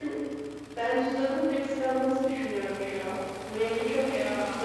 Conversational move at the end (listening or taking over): listening